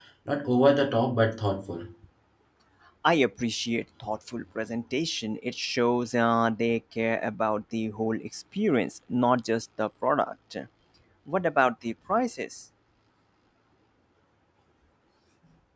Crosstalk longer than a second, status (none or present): none